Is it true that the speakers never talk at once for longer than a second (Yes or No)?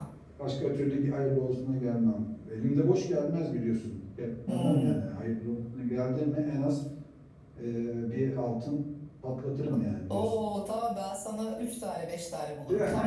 Yes